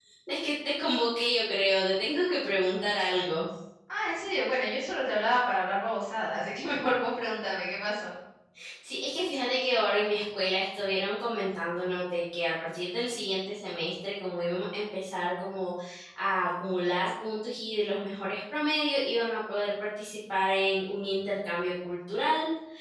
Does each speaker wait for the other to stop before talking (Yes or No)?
Yes